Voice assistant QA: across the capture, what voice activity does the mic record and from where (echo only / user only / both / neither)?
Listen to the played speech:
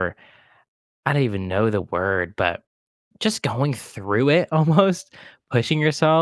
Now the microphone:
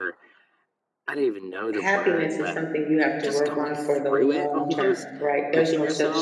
both